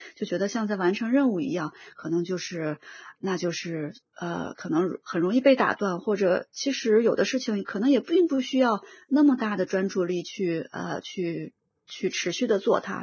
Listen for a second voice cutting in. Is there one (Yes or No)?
No